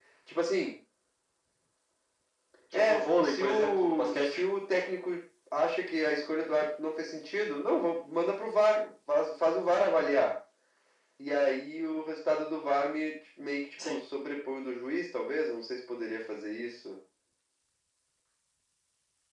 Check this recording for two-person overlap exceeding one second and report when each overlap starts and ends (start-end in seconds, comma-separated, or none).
2.7-4.4